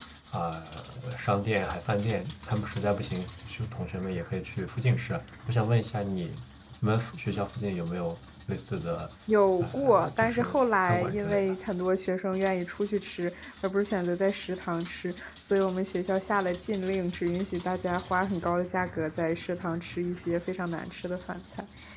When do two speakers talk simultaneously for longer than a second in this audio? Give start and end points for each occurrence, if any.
9.6-11.6

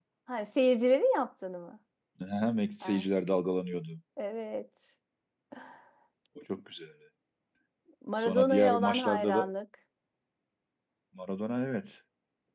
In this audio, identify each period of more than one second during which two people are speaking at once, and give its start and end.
8.2-9.5

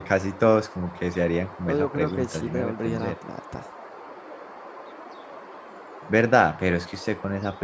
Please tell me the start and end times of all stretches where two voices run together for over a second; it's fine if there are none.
1.7-3.1

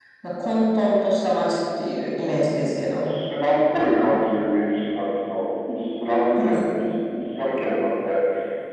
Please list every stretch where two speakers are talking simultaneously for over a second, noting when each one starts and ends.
none

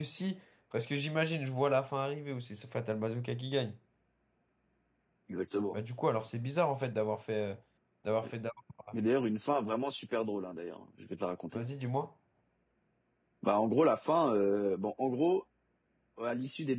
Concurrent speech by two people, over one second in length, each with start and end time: none

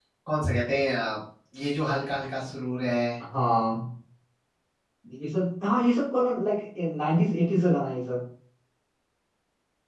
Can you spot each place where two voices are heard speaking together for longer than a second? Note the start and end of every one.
none

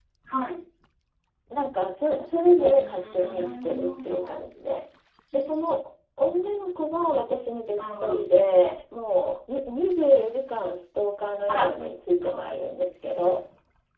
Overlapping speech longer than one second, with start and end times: 2.6-4.3

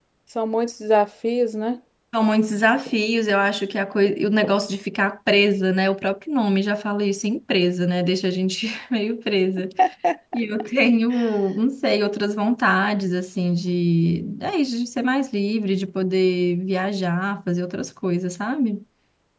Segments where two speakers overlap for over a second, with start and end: none

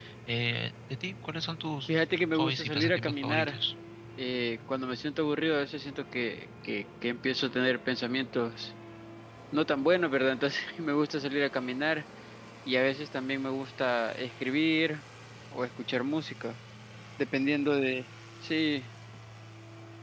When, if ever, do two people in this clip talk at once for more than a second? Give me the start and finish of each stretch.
1.9-3.6

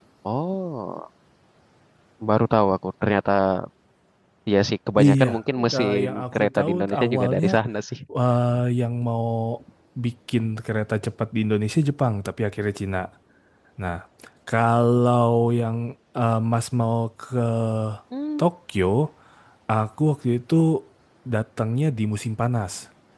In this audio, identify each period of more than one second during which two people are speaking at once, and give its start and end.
5.7-7.5

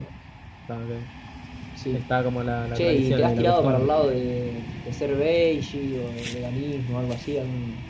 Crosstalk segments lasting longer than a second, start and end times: 2.8-4.0

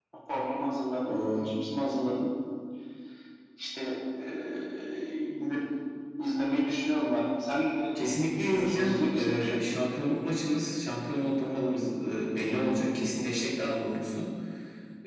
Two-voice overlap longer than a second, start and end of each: 8.3-9.6

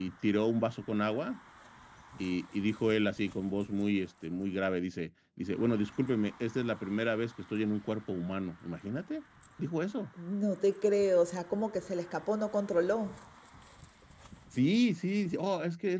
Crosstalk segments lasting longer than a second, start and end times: none

